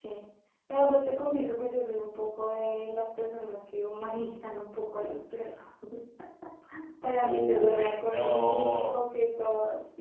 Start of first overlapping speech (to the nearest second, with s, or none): 7 s